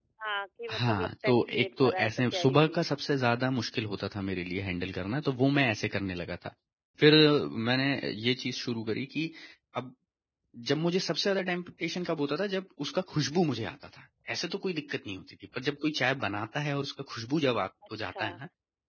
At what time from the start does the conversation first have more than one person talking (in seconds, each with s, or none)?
0.7 s